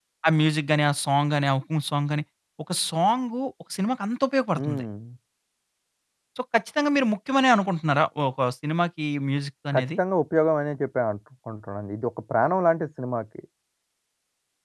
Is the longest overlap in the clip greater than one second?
No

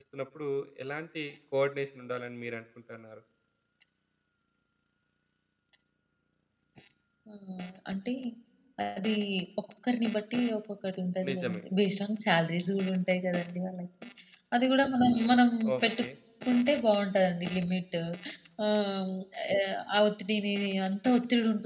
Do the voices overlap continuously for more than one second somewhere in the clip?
No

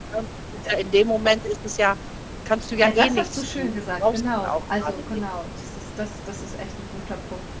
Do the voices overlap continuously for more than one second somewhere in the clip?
Yes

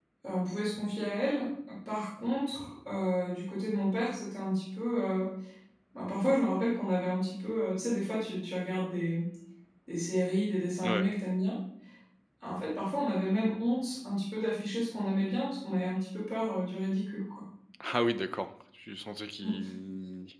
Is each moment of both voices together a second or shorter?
Yes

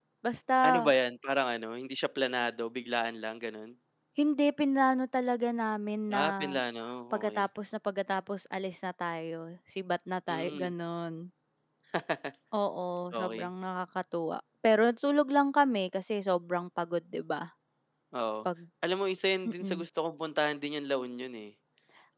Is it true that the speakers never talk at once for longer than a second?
Yes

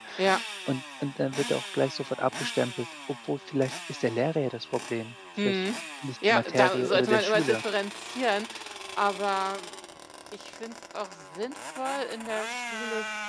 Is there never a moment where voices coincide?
No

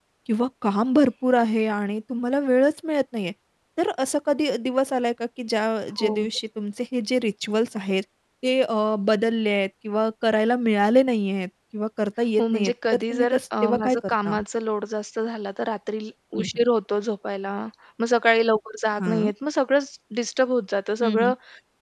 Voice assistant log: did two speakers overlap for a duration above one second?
Yes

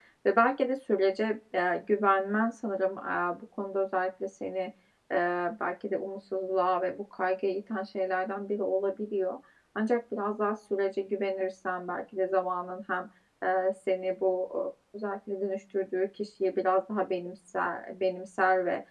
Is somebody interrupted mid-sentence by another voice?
No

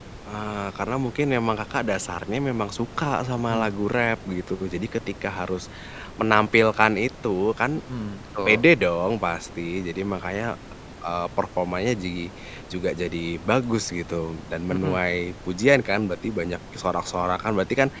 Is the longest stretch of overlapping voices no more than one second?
Yes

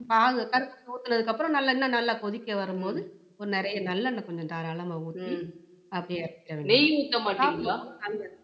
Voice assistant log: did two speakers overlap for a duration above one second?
No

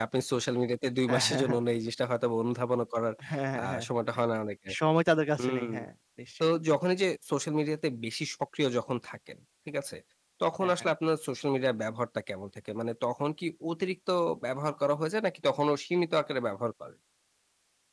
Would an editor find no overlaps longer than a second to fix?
Yes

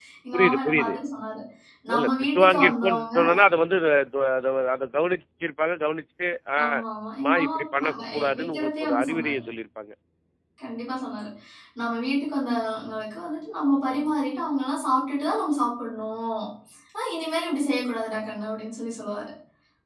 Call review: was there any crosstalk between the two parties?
Yes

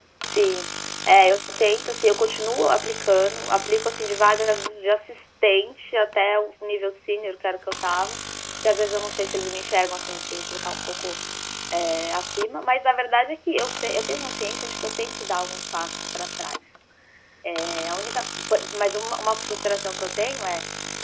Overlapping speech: No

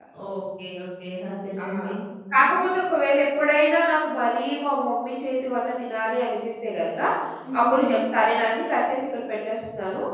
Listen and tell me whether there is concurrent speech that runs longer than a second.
No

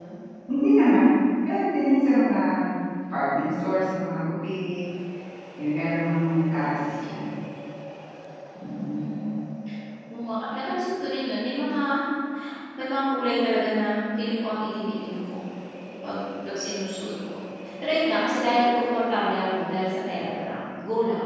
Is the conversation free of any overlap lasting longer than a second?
Yes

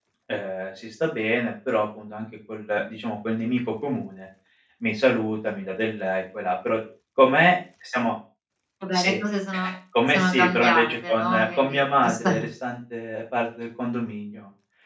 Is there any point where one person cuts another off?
Yes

